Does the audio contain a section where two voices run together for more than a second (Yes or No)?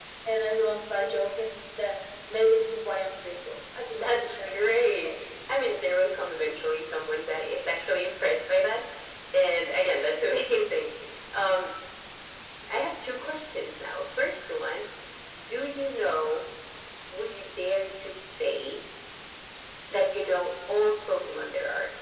Yes